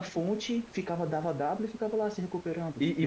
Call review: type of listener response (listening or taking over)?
taking over